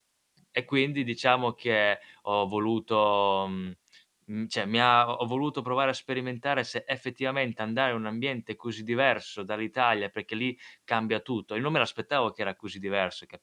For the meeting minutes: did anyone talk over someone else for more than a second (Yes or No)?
No